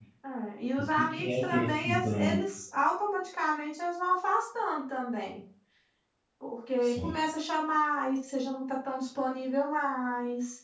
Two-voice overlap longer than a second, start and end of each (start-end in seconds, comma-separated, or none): 0.8-2.5